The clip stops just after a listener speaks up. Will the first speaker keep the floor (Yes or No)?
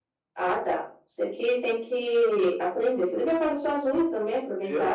No